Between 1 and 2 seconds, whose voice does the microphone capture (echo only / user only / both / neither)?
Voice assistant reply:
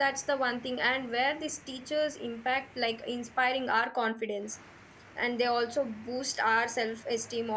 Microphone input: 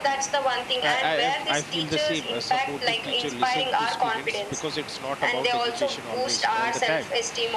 both